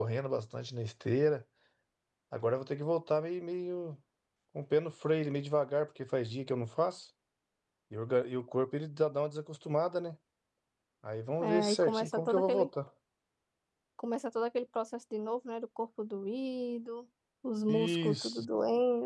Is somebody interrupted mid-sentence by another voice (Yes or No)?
Yes